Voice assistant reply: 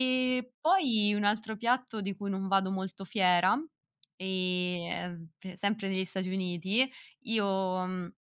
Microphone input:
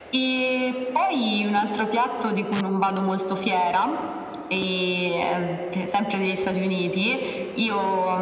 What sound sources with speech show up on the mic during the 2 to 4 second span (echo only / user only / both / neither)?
echo only